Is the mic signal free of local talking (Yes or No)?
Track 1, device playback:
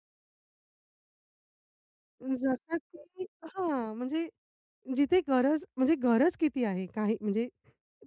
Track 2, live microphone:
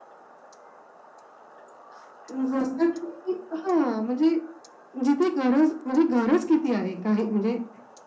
Yes